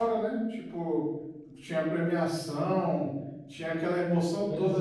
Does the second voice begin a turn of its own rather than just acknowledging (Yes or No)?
Yes